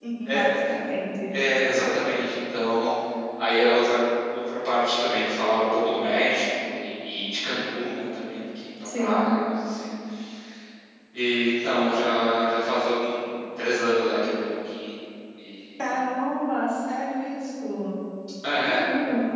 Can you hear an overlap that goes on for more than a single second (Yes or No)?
No